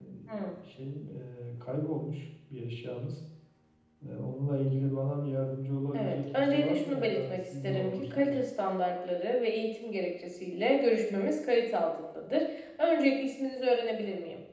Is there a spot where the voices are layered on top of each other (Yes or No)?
Yes